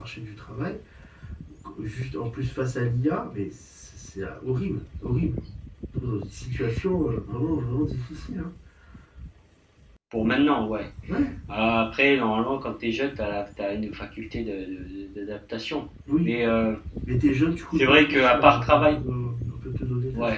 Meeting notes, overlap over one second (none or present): present